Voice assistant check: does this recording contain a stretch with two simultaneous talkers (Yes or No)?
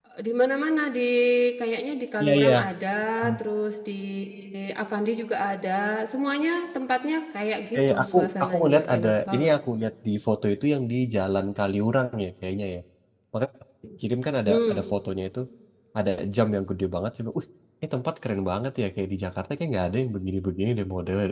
Yes